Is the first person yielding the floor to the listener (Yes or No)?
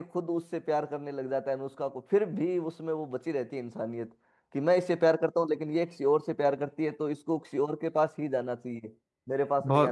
Yes